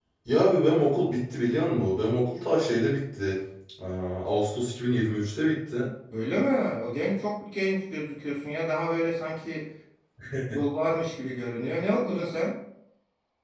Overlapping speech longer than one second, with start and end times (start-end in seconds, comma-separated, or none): none